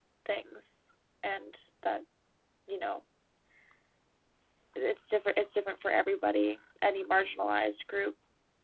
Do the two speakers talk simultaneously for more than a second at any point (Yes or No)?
No